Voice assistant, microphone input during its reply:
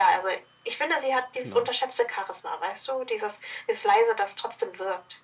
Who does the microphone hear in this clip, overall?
both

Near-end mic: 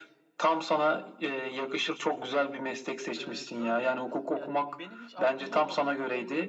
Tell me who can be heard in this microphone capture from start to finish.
both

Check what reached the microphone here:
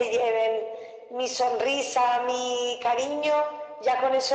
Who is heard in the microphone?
echo only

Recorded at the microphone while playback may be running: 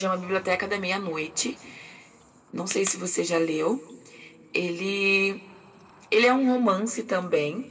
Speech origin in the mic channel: echo only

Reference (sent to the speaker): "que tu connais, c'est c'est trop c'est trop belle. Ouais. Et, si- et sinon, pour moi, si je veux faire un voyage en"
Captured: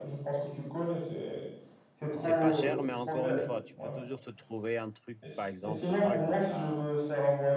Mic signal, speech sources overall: both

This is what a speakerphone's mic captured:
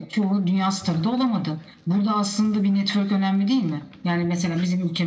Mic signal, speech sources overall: echo only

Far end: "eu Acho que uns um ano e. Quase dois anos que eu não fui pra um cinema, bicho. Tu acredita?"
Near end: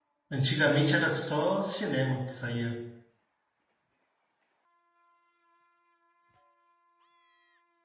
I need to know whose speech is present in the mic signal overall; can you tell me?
user only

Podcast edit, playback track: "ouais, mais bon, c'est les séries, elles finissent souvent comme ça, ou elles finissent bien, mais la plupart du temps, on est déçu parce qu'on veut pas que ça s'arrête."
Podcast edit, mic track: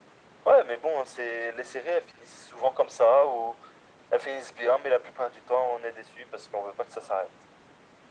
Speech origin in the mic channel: echo only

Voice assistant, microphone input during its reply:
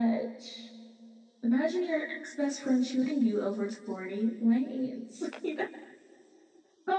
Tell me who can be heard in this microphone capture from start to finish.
echo only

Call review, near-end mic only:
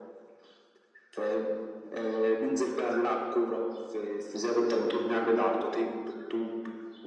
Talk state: echo only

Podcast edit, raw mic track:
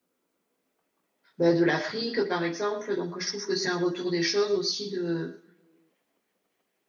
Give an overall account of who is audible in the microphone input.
user only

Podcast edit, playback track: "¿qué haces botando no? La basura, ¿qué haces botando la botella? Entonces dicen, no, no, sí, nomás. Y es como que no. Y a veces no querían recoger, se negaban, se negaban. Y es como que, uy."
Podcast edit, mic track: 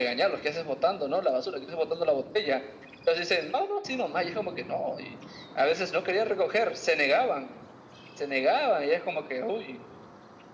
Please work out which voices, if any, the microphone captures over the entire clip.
echo only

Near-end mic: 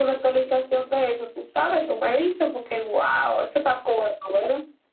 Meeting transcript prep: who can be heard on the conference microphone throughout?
echo only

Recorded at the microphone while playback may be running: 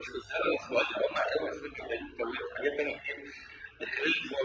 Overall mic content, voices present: echo only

